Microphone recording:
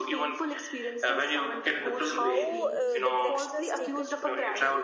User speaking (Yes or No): Yes